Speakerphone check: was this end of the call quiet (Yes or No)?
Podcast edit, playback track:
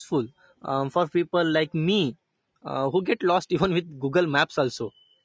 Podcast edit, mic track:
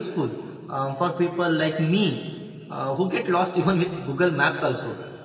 Yes